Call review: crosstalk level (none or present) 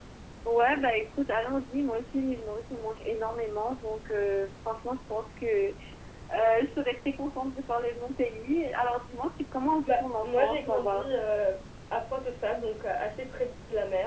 present